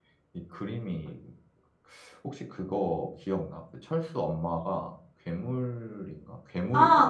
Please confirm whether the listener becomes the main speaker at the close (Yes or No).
Yes